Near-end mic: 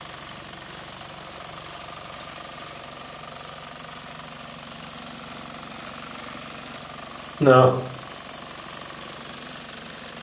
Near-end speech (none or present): present